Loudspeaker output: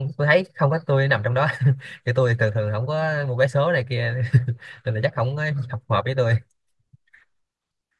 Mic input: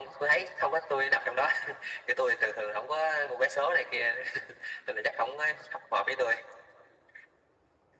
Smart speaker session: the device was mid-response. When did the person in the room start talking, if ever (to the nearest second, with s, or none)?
none